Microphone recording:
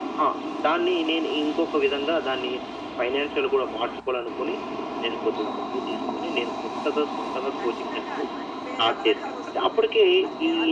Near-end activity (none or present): present